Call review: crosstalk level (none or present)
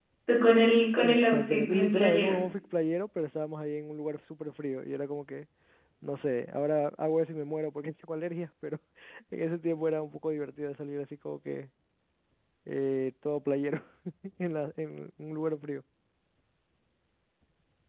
present